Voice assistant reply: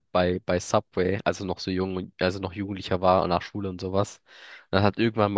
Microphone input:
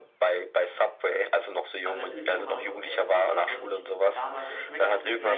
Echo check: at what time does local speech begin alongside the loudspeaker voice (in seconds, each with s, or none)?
1.8 s